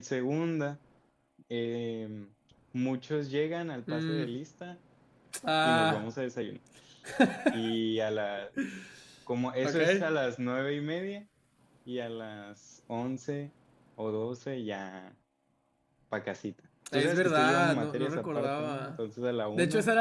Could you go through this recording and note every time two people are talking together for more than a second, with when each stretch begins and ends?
16.9-19.0

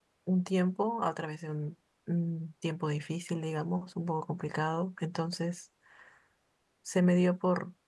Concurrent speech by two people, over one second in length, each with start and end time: none

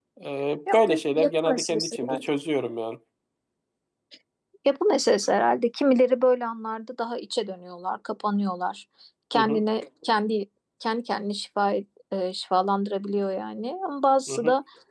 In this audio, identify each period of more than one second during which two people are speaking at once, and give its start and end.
0.7-2.2

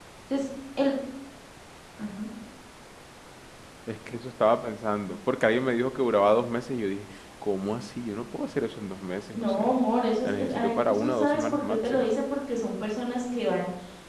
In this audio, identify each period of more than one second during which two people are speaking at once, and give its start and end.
10.2-12.1

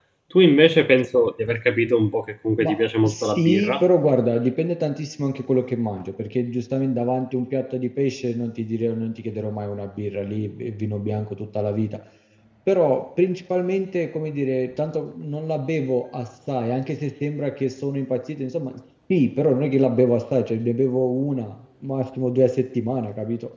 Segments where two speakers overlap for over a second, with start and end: 2.6-3.8

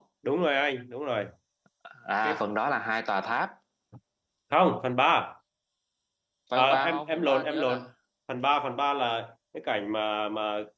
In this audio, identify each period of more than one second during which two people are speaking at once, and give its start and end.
6.5-7.8

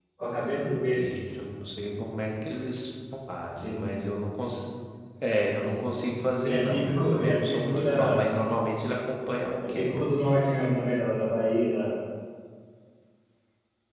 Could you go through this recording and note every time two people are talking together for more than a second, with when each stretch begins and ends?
6.5-8.0

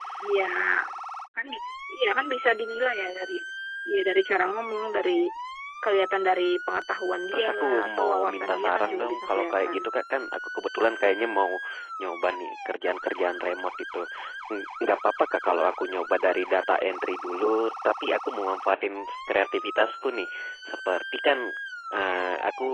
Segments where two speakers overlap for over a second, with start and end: 7.3-9.8

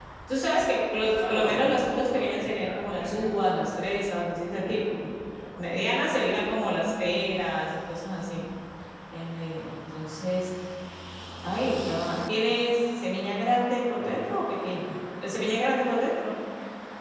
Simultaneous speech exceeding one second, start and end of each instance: 1.2-3.4

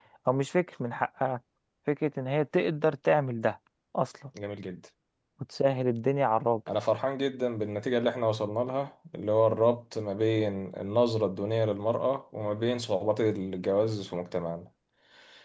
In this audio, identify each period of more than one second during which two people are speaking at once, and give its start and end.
none

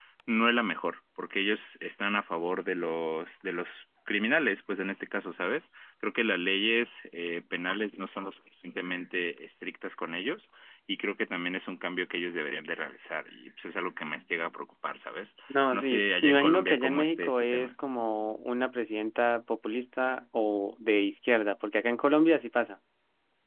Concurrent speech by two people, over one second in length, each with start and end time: 15.7-17.7

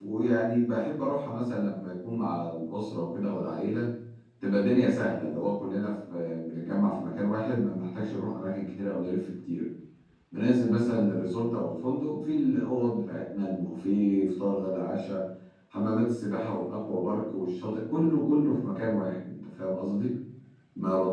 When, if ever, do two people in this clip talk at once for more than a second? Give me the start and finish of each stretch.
none

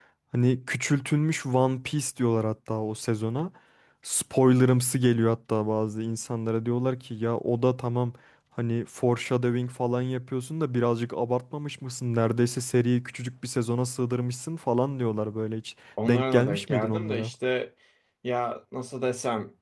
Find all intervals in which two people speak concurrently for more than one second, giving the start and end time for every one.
16.1-17.3

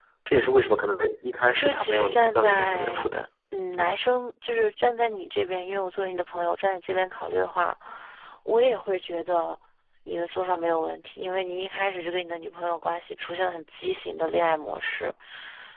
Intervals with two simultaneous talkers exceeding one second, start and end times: 1.6-3.1

